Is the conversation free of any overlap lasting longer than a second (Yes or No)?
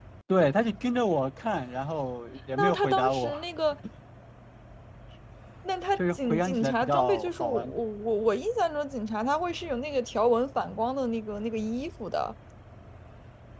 No